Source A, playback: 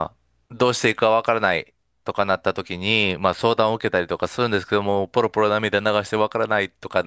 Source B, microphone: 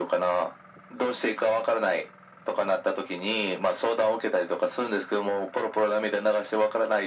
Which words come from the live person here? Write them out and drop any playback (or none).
none